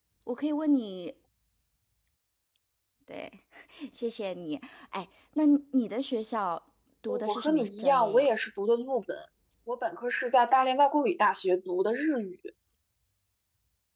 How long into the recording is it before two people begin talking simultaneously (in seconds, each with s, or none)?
7.1 s